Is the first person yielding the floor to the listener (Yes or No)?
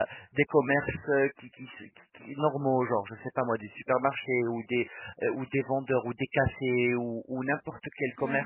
No